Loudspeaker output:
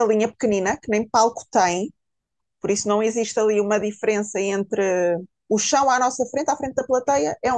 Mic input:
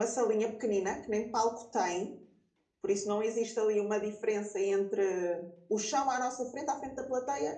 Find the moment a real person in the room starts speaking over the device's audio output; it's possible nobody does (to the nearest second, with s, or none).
none